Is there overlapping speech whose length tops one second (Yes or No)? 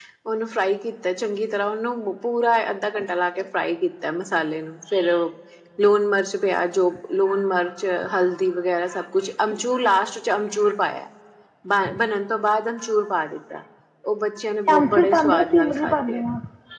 Yes